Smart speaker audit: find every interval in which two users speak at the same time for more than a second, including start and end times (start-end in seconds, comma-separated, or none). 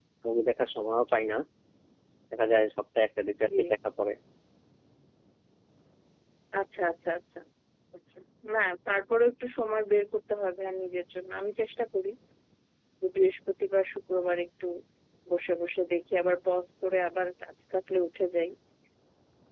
none